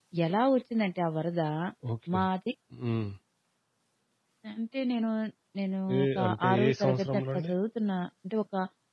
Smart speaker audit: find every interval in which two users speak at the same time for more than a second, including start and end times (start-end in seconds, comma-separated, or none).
6.0-7.5